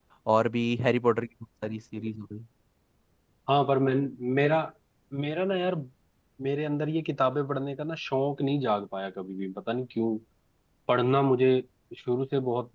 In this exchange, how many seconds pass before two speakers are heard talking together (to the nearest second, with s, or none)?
none